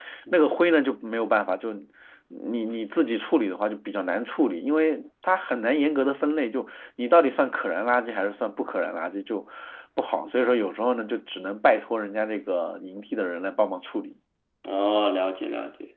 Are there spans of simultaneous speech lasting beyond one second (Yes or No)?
No